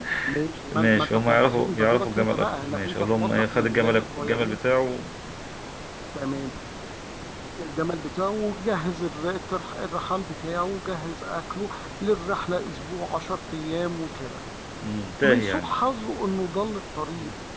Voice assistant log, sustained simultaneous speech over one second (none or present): present